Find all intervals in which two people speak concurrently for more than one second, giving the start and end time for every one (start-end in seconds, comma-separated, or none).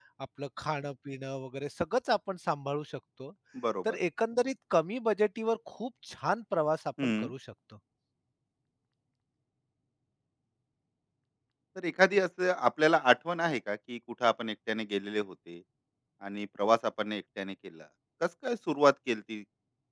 none